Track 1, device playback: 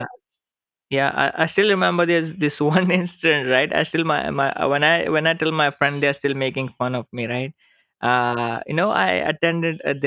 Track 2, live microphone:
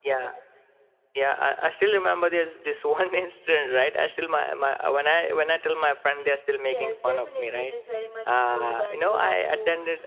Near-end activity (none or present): present